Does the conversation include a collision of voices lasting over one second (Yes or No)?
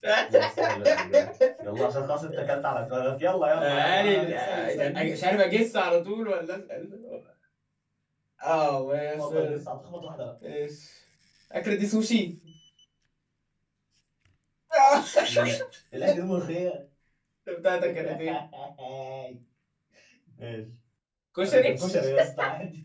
Yes